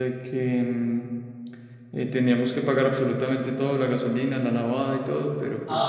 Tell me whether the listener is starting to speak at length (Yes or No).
Yes